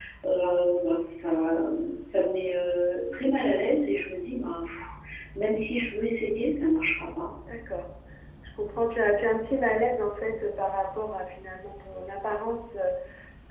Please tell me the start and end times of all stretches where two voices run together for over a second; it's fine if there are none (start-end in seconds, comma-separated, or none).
none